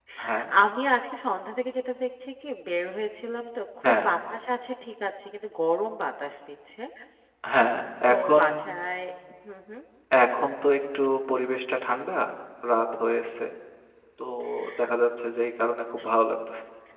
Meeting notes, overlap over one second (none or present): none